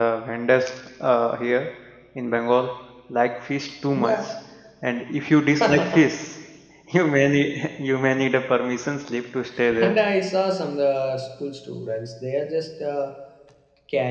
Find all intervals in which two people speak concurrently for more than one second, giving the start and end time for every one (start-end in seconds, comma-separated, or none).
none